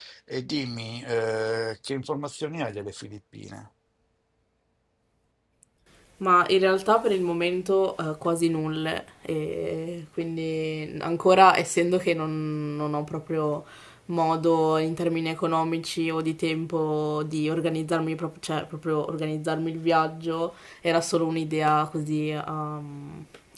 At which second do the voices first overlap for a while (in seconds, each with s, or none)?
none